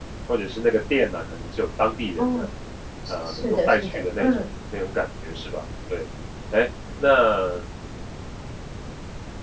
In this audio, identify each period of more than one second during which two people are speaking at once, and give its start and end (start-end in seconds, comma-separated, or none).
3.1-4.4